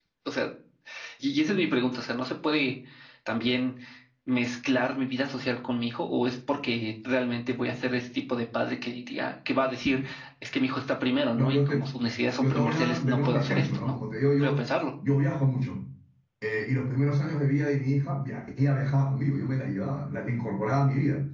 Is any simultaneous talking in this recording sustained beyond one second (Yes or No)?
Yes